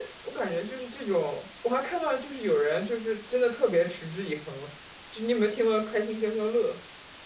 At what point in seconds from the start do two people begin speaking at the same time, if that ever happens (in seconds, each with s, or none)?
none